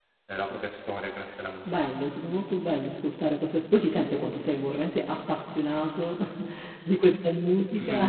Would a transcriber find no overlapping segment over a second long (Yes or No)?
Yes